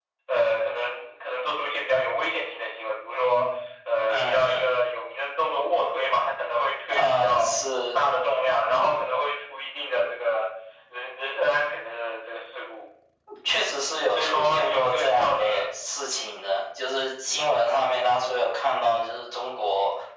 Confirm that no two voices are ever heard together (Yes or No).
No